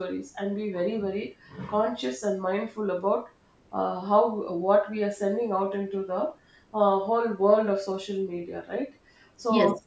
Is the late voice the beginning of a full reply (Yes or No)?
No